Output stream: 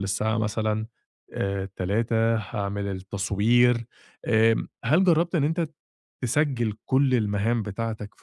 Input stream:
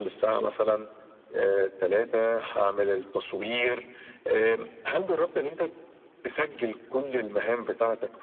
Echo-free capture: No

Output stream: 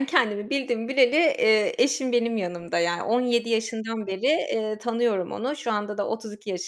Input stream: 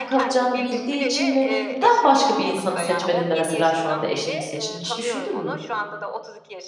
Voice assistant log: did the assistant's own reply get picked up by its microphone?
Yes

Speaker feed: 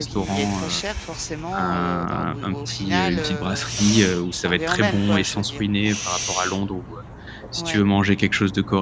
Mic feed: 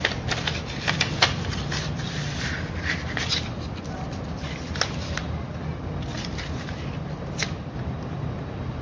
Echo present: No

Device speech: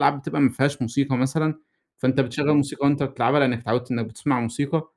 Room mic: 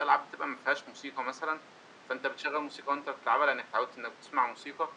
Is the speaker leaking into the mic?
Yes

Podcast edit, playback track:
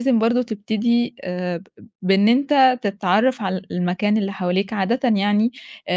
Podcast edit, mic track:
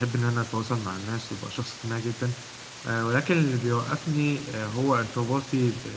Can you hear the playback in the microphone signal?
No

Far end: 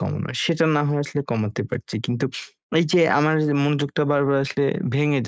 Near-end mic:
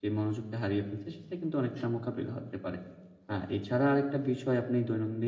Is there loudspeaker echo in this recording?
No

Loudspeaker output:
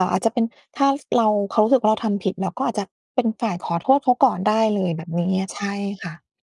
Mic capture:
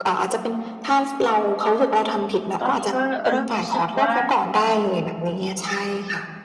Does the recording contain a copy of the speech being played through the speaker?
Yes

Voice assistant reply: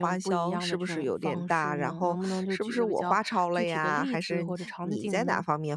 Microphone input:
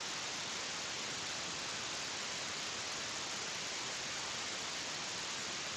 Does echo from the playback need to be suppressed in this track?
No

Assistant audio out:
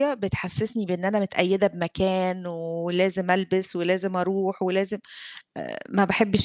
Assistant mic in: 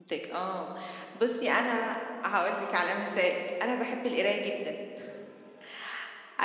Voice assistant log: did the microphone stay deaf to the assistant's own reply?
Yes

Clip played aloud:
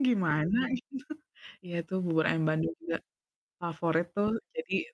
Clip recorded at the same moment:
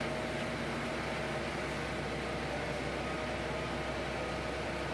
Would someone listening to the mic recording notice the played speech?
No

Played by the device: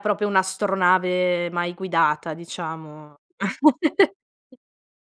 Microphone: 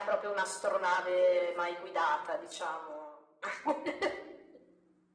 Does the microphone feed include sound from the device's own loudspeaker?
Yes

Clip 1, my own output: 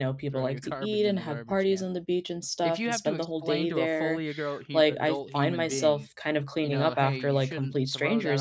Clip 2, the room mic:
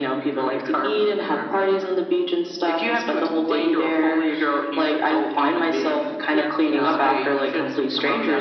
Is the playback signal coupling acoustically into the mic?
Yes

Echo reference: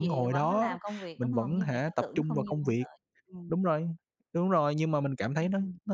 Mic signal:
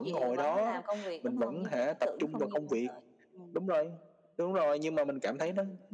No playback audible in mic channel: No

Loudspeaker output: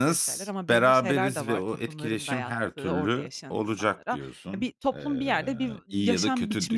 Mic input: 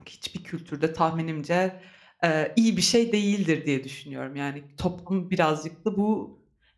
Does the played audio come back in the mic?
No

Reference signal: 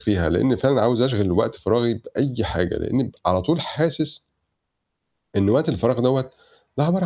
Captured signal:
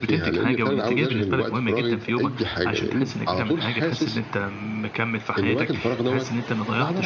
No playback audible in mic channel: No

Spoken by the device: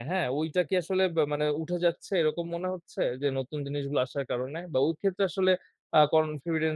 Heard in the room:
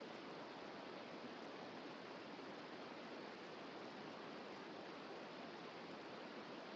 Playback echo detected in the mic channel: No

